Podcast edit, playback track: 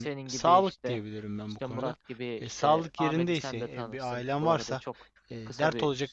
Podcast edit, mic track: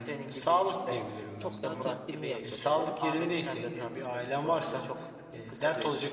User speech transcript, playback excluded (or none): çok daha temkinli yaklaşıyorum.